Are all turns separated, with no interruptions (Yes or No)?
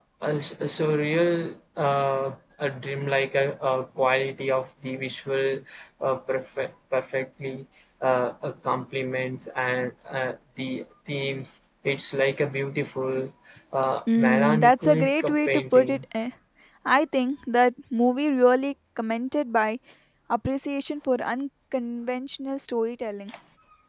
No